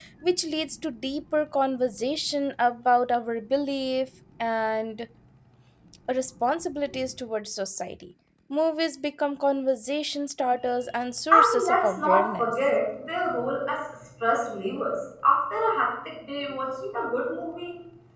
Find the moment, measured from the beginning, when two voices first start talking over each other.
11.3 s

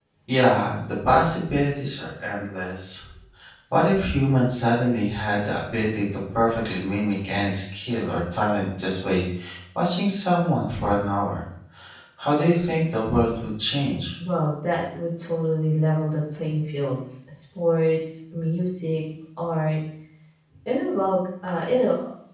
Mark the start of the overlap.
none

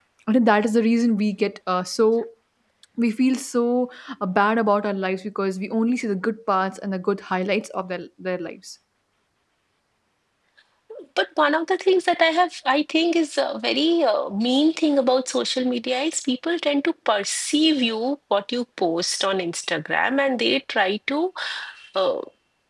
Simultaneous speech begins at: none

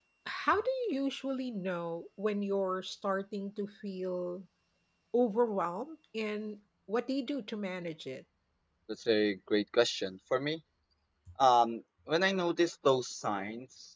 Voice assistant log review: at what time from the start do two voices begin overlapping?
none

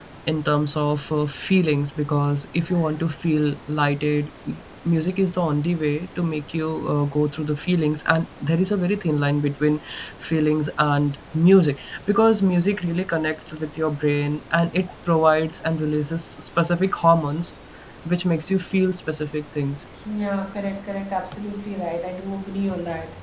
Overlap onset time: none

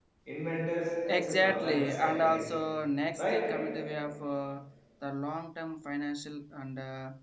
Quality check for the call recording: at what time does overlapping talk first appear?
1.1 s

